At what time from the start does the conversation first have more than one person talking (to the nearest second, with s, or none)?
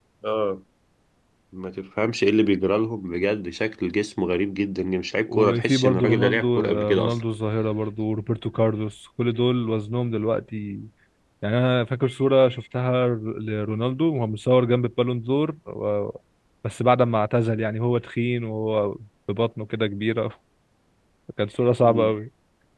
5 s